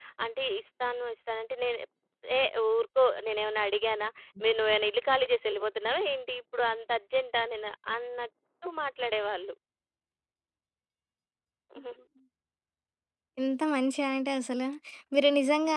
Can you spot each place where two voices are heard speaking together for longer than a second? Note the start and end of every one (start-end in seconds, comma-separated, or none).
none